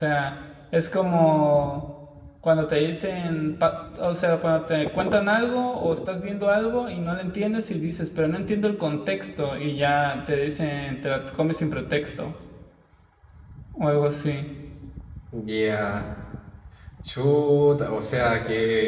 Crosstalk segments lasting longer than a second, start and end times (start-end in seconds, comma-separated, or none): none